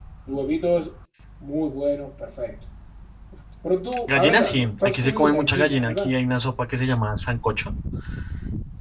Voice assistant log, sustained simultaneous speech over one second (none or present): present